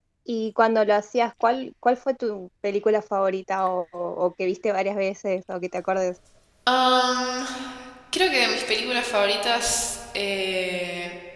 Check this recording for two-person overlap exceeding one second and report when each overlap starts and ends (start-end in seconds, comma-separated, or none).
none